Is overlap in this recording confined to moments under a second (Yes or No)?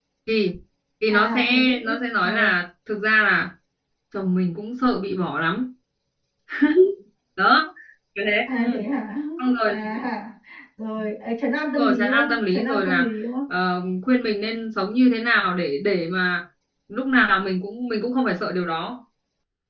No